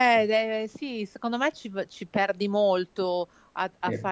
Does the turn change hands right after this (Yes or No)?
No